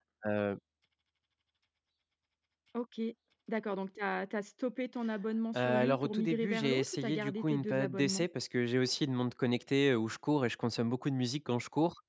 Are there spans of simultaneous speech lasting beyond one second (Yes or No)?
Yes